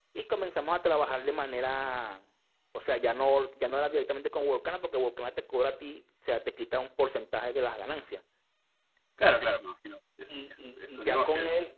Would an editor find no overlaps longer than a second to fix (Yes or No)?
No